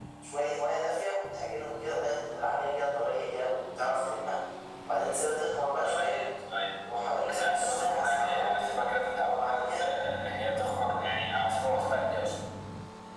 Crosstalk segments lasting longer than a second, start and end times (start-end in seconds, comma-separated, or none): 7.3-8.5